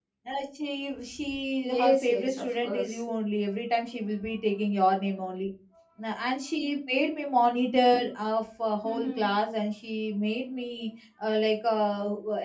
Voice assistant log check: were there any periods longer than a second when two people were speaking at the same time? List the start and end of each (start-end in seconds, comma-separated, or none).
1.6-3.0